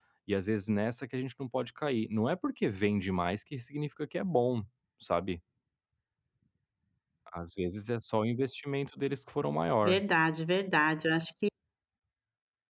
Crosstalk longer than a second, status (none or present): none